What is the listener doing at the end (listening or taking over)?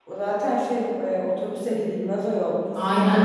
taking over